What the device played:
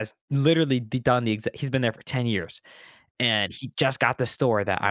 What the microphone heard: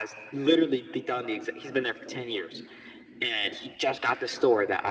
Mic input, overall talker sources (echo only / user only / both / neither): echo only